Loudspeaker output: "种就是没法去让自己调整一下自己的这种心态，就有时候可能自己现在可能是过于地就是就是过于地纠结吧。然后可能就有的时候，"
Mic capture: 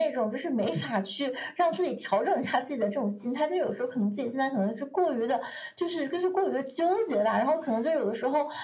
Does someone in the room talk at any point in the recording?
No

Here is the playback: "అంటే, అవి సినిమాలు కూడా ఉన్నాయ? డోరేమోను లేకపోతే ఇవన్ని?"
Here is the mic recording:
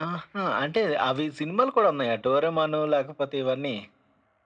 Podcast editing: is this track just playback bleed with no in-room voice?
Yes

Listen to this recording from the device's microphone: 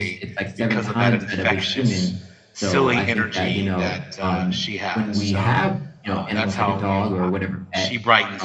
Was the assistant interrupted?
Yes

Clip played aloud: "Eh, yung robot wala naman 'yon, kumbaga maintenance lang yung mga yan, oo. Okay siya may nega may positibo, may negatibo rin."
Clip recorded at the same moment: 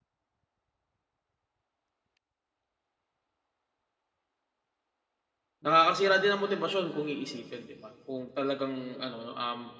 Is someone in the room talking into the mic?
Yes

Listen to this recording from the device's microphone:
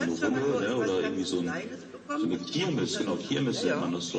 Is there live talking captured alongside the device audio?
Yes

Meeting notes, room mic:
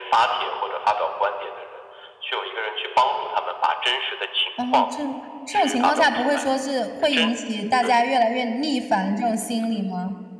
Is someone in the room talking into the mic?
Yes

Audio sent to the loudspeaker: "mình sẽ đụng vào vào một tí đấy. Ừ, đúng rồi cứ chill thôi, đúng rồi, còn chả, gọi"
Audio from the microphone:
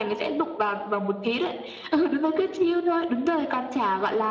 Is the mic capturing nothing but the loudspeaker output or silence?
Yes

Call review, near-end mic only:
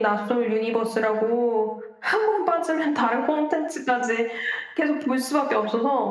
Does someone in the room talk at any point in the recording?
No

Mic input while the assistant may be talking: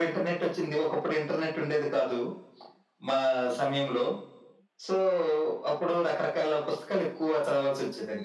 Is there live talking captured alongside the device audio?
No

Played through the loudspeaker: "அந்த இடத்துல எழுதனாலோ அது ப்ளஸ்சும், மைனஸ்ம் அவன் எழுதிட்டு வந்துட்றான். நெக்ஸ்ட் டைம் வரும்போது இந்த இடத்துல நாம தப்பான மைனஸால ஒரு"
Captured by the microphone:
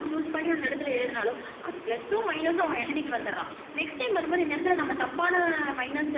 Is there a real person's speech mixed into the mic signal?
No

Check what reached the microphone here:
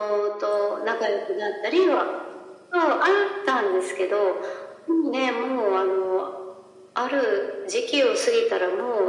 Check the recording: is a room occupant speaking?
No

